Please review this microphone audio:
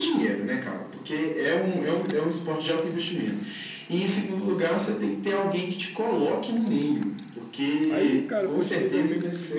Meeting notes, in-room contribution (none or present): present